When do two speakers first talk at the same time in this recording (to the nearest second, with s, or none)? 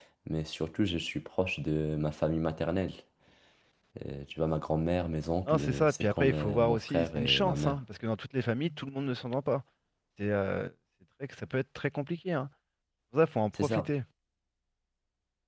5 s